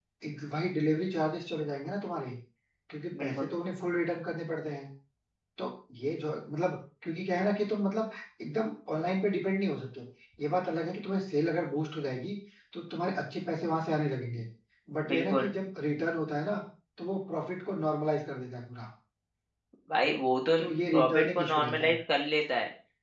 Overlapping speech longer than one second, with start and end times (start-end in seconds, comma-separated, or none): 20.6-21.9